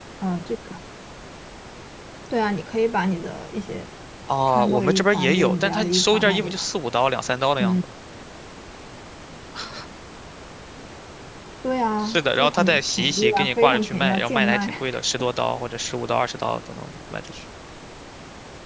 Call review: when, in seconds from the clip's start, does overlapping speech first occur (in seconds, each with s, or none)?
4.5 s